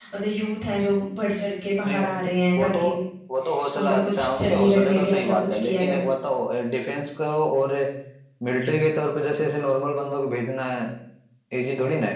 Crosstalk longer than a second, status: present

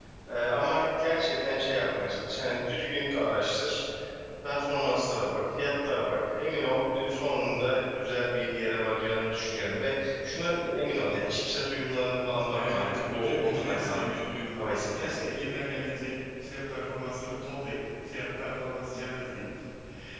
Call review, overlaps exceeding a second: present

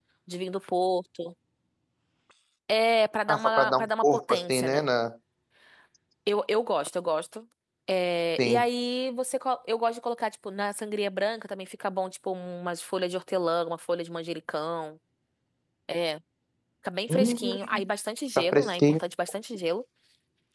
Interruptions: present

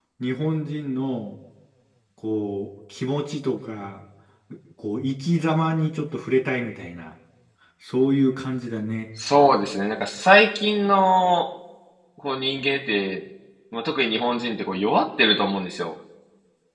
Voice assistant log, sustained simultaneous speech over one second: none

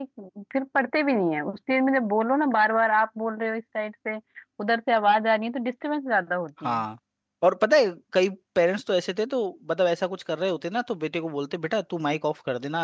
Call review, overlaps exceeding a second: none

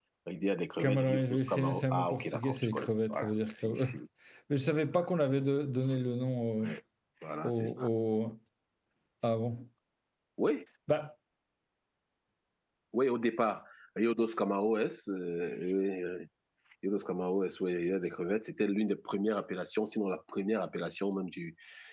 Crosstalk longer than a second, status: present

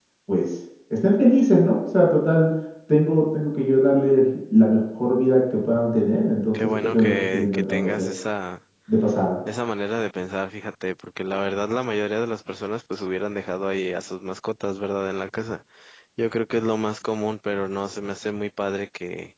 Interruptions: present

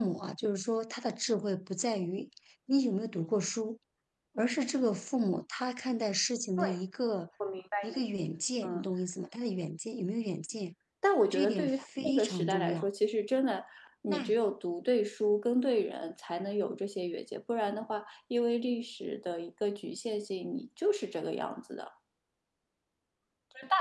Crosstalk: present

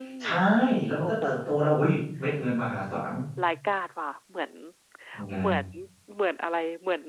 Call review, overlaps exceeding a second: none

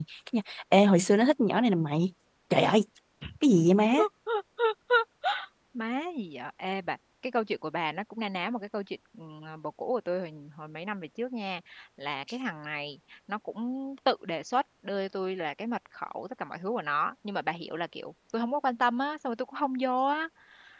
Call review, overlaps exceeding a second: none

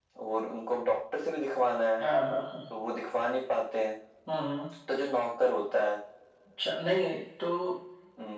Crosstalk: none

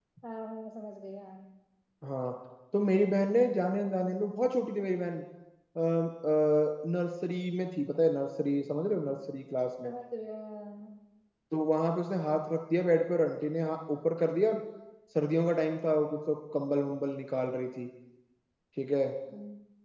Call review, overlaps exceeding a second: none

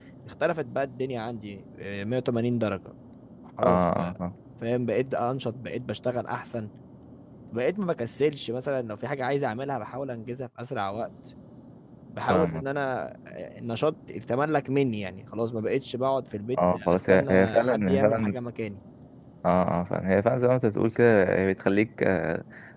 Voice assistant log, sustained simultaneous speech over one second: present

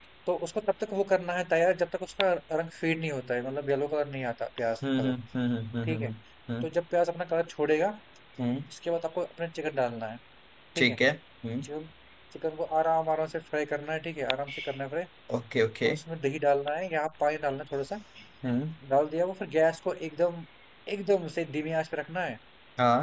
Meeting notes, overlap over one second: none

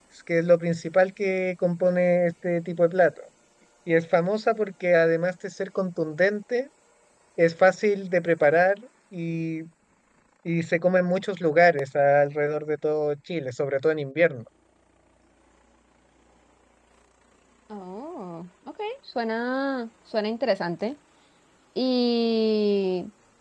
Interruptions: none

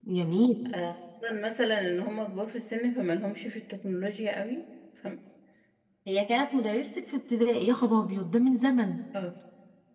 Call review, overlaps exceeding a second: none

